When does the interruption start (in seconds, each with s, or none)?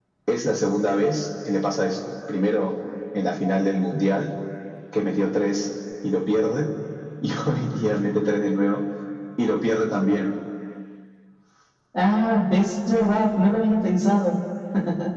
none